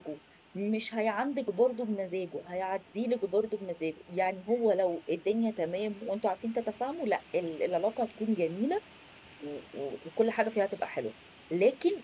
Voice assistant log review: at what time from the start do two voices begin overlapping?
none

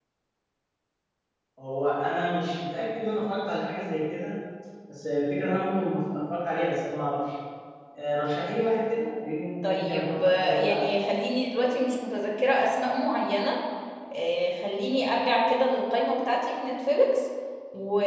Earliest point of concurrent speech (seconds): 9.6 s

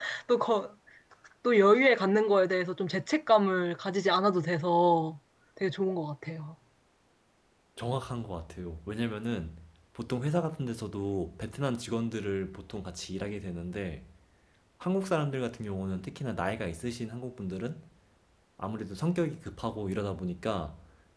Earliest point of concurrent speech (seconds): none

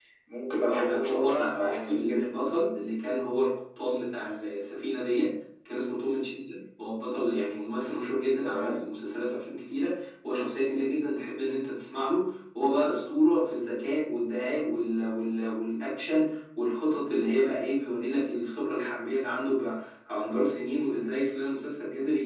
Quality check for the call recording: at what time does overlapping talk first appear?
0.7 s

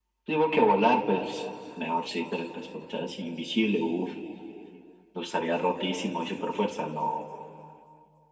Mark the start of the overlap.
none

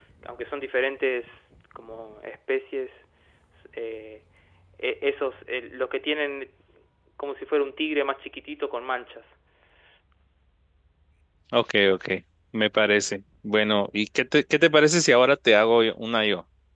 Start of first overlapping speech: none

